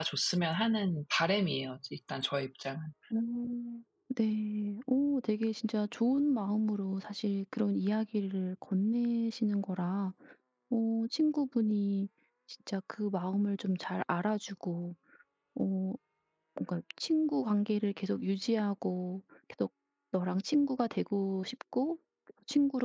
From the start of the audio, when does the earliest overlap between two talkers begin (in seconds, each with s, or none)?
none